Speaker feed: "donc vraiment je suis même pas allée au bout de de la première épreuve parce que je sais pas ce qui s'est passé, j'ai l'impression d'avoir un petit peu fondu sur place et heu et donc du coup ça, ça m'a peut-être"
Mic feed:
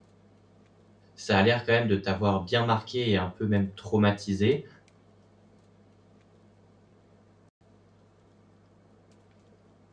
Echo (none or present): none